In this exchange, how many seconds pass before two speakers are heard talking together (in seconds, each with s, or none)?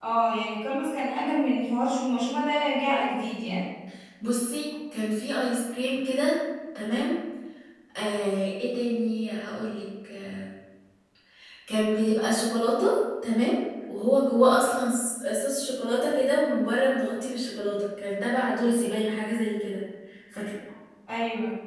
none